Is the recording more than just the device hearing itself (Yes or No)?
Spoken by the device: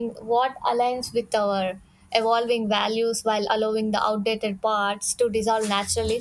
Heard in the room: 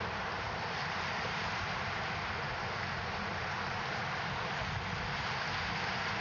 No